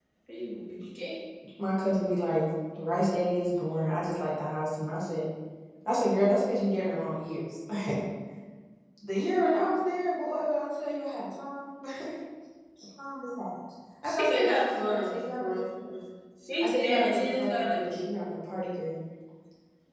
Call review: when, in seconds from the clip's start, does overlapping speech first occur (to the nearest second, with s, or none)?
14 s